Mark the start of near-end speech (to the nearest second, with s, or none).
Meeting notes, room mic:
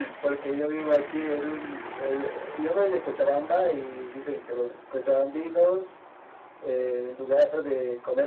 none